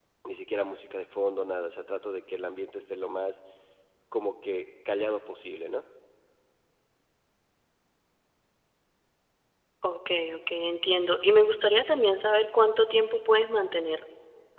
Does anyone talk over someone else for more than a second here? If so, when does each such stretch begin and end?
none

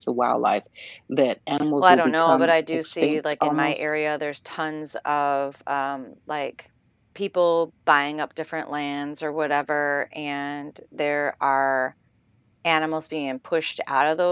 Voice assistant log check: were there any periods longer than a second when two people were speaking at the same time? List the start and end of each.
1.8-3.8

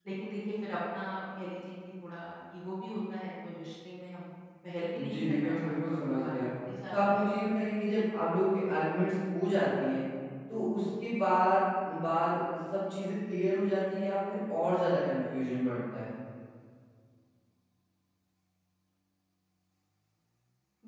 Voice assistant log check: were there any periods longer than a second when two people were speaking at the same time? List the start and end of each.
5.0-6.5

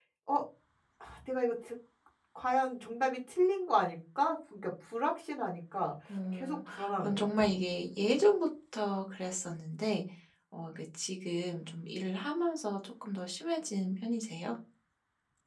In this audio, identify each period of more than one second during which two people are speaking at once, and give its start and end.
6.3-7.5

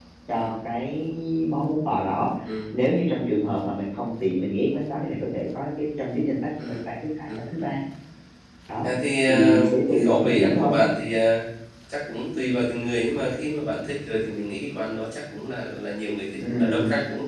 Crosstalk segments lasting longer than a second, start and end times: 9.3-10.8

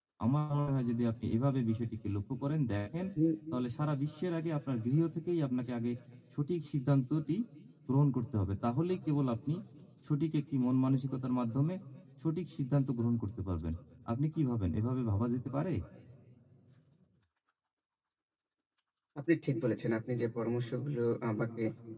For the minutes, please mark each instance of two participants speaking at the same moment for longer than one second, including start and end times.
none

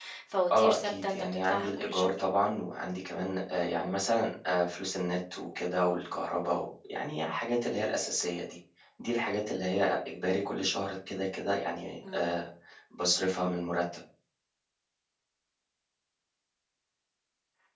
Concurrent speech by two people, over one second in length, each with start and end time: 0.5-2.1

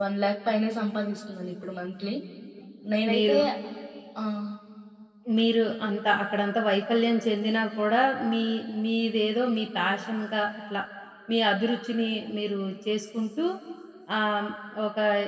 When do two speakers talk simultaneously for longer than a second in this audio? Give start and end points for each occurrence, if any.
none

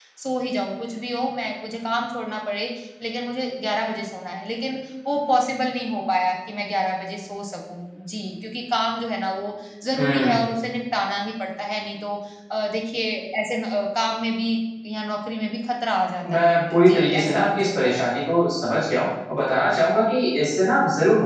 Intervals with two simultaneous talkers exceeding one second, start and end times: 16.2-17.6

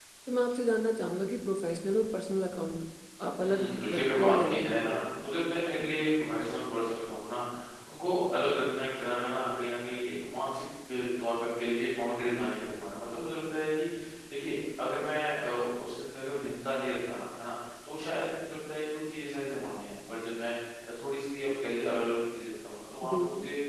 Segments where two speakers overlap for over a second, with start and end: 3.4-4.8

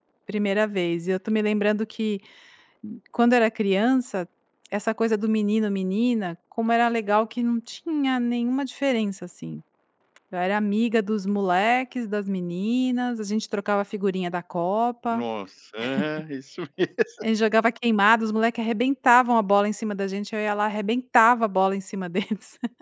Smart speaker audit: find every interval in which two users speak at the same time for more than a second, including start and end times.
none

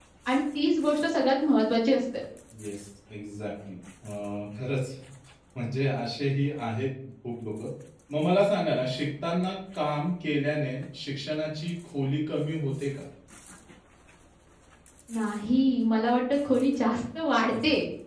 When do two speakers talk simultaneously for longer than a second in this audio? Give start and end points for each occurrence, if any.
none

